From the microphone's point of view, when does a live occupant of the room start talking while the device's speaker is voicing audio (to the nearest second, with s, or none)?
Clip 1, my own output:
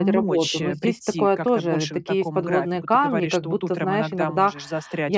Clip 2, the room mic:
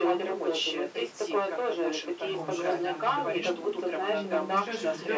2 s